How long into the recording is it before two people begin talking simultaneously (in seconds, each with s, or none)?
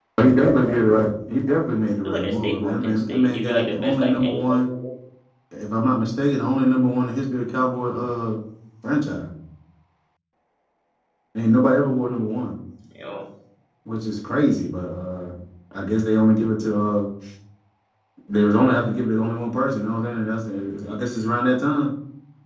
2.0 s